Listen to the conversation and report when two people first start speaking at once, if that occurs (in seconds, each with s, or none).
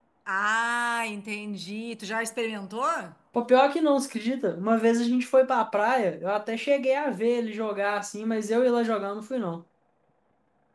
none